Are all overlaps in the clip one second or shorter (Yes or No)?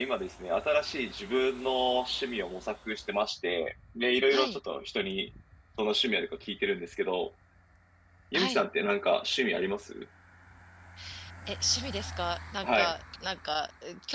Yes